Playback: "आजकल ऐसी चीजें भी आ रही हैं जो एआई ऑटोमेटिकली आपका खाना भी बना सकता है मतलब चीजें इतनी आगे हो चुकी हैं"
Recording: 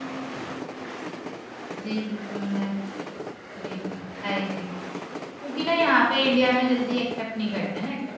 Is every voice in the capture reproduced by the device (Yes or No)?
No